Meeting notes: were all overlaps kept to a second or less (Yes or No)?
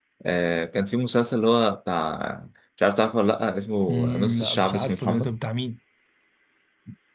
No